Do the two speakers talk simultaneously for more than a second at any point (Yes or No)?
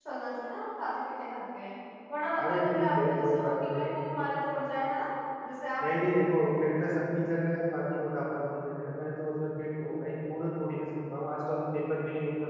Yes